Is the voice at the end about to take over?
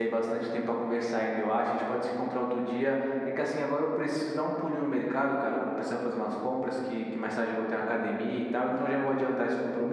No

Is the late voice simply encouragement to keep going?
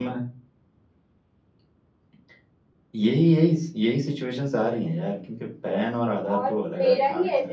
No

